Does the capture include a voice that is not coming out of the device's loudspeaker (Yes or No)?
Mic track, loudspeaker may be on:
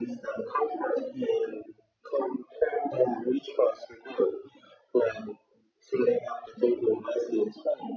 No